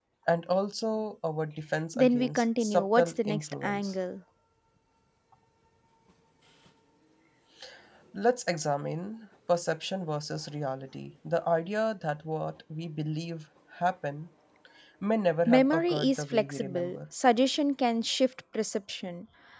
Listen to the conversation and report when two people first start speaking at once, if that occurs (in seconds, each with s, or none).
1.9 s